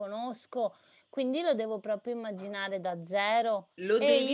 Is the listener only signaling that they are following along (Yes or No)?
No